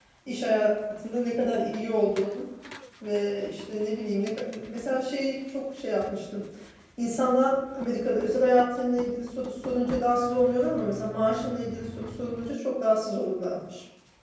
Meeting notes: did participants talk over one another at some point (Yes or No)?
No